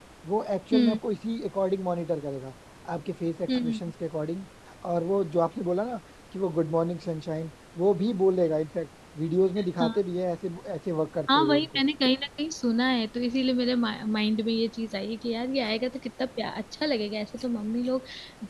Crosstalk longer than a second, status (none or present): none